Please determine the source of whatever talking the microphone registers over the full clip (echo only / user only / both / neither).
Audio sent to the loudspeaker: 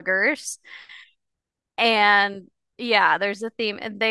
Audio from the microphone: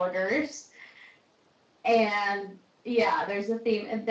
echo only